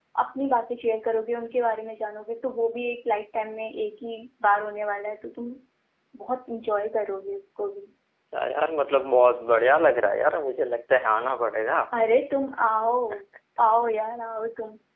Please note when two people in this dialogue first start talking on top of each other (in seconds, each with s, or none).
none